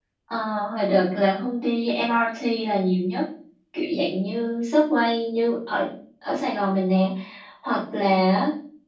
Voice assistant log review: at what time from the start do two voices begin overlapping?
none

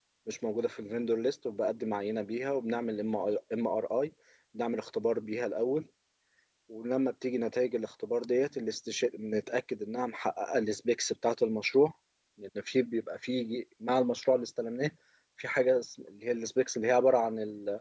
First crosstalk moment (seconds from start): none

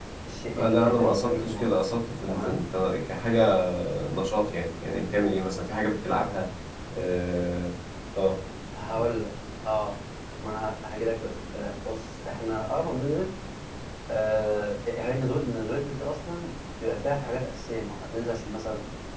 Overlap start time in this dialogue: 0.6 s

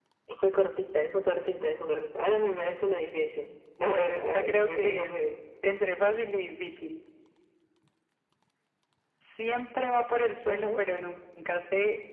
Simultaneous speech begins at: 3.8 s

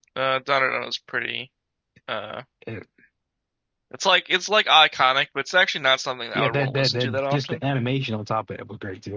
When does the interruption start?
6.3 s

